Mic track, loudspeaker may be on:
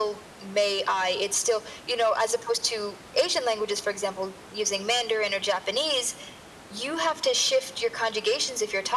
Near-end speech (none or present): none